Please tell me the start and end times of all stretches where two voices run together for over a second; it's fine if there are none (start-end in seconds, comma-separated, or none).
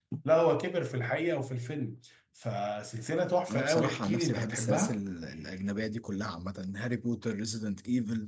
3.5-5.0